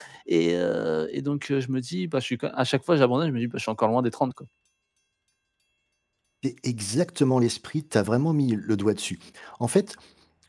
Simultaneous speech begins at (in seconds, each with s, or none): none